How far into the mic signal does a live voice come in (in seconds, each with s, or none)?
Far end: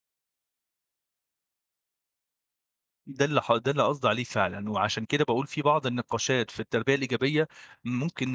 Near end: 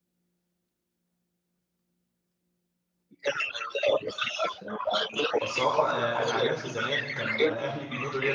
5.4 s